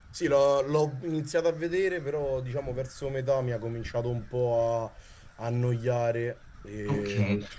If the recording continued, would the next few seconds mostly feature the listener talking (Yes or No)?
Yes